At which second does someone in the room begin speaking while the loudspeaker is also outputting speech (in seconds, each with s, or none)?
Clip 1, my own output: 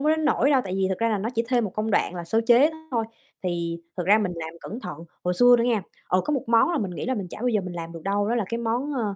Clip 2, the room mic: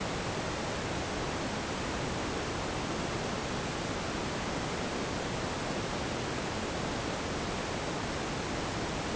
none